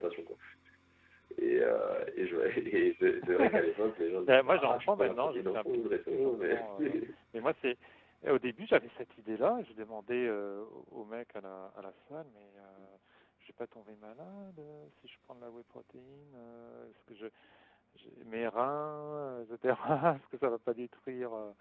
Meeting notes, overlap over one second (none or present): present